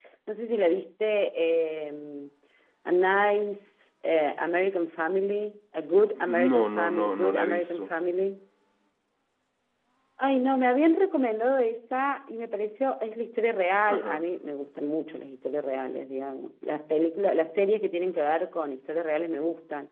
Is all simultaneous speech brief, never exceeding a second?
No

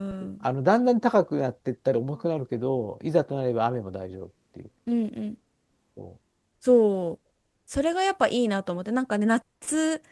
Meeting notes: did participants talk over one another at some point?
No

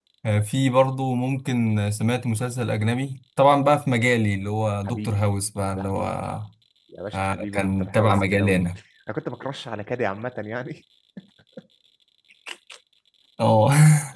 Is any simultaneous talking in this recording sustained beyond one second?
Yes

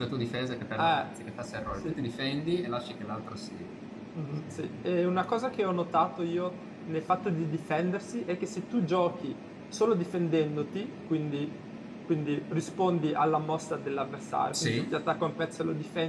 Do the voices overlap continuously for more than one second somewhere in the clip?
No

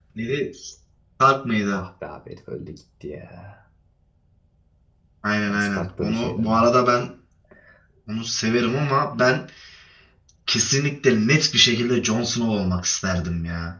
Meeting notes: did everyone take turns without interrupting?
No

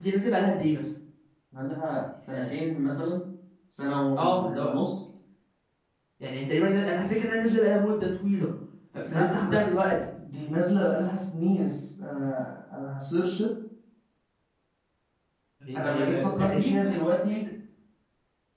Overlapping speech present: Yes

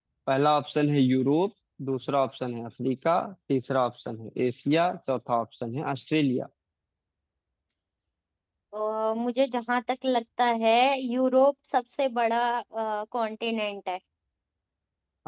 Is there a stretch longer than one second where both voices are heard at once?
No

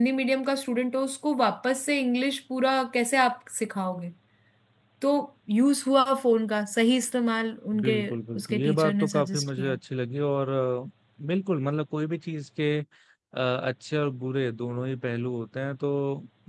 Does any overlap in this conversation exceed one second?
Yes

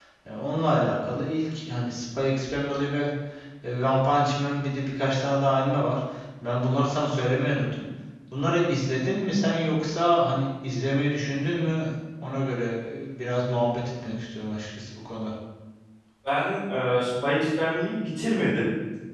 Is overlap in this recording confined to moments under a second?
Yes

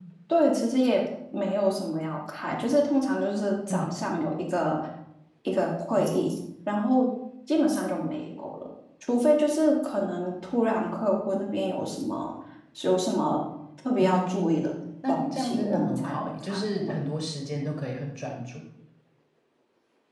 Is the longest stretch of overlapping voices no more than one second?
No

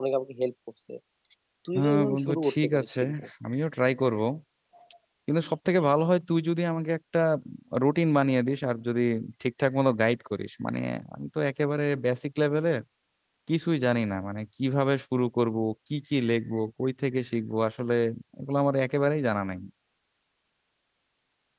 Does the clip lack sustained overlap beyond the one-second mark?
No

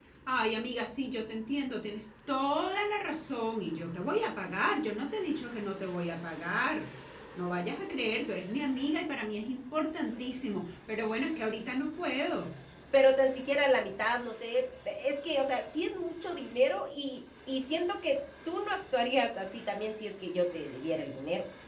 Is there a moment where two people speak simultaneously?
No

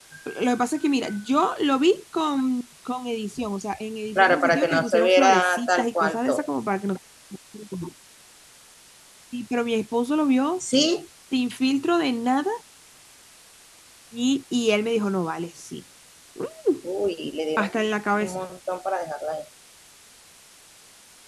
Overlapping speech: Yes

